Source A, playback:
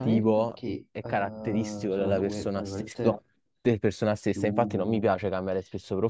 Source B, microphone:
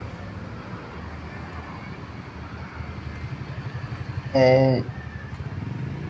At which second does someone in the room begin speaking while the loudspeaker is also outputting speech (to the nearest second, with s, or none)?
4 s